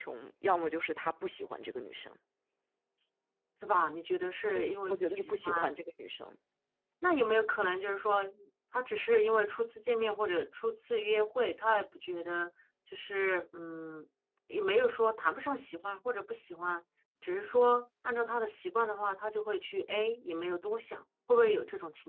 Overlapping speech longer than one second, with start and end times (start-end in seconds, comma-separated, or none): 4.5-5.8